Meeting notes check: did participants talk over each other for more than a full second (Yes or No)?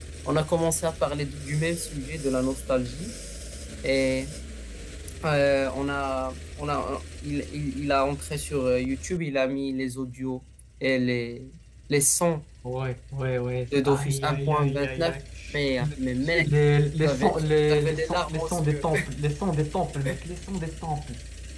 Yes